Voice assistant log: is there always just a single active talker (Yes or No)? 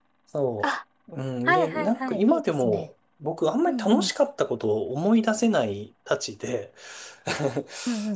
No